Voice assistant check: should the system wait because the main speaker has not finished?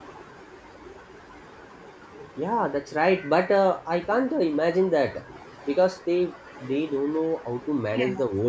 No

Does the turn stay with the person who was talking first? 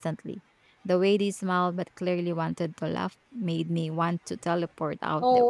No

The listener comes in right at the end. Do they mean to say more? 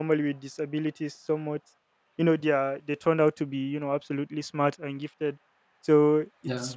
No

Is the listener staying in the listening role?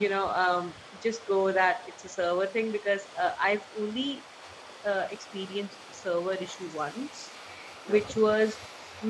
Yes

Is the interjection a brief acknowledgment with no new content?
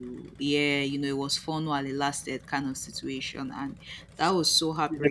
Yes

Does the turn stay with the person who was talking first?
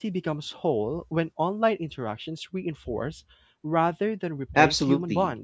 No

